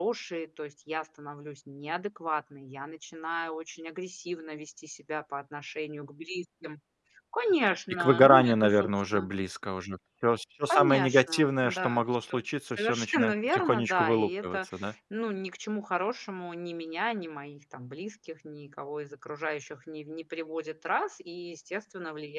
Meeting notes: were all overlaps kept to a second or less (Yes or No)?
No